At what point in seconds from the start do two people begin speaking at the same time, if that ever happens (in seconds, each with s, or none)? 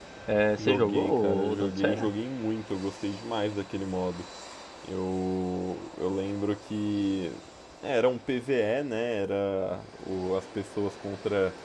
0.6 s